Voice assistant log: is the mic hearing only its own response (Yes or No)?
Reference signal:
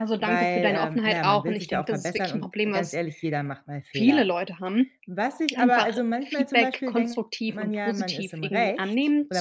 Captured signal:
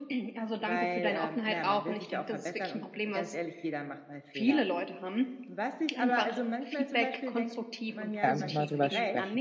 No